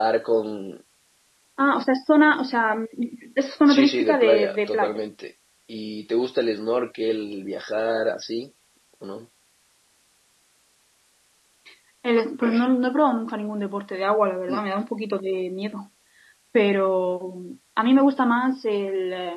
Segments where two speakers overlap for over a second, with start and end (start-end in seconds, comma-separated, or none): 3.7-5.0